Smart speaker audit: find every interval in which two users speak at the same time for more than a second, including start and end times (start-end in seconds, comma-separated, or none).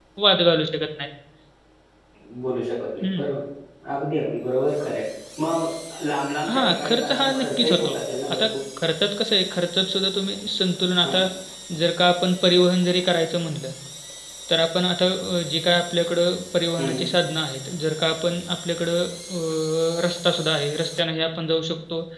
6.5-7.9